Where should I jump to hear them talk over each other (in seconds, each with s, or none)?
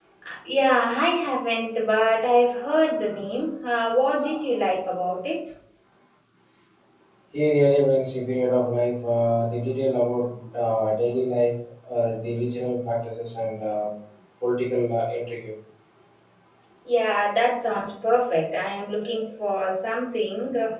none